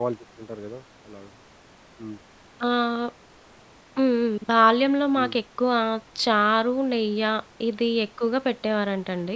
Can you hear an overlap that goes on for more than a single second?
No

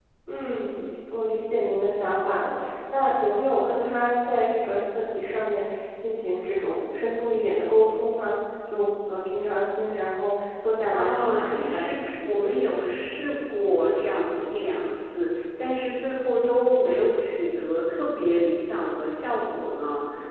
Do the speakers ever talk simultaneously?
Yes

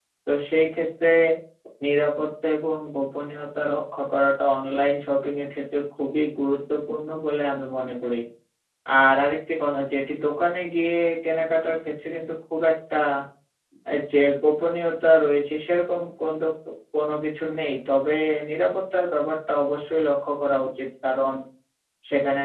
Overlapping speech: No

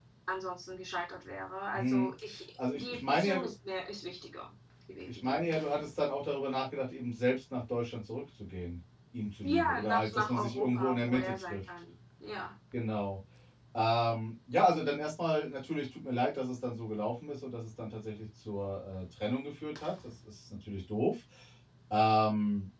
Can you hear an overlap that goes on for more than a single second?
Yes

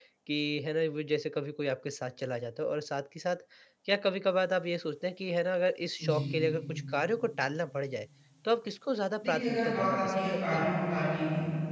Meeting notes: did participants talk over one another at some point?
Yes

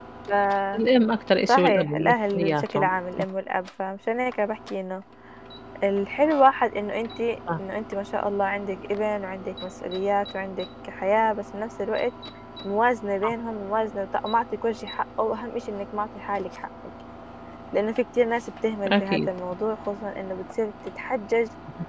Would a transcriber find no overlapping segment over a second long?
No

